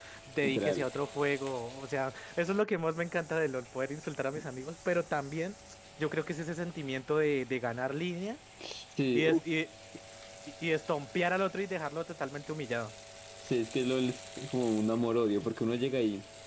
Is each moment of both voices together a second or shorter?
Yes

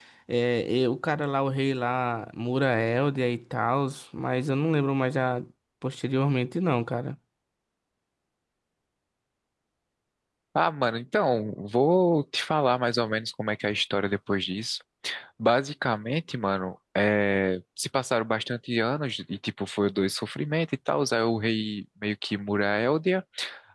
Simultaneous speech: No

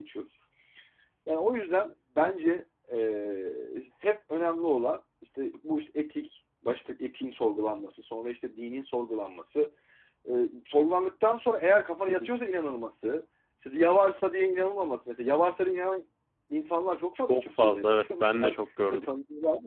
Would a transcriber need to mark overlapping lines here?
Yes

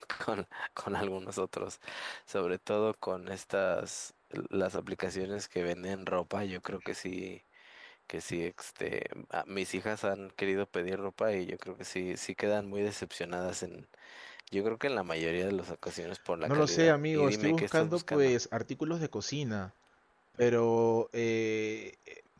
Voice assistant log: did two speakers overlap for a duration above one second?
Yes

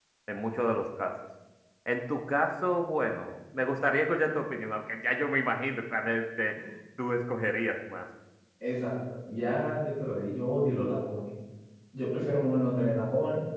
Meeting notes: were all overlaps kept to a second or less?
Yes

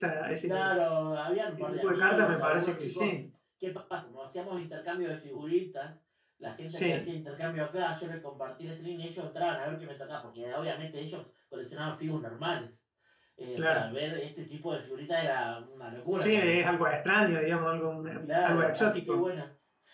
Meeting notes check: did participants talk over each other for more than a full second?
Yes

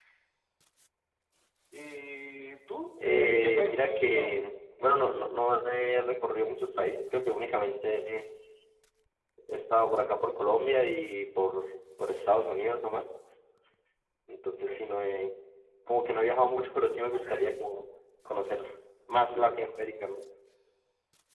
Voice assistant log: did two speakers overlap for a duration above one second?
Yes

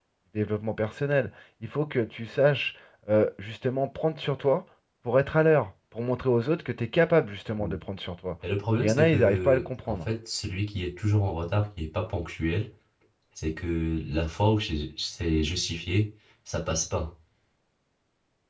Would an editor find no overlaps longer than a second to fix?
No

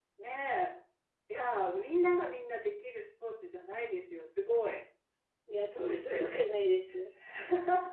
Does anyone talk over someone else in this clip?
No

